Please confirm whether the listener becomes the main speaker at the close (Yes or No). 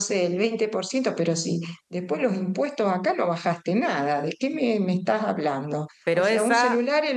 No